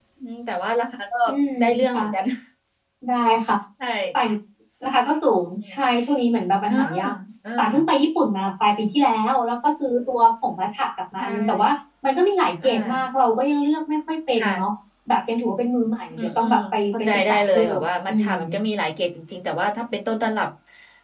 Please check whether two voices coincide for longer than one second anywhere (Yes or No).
Yes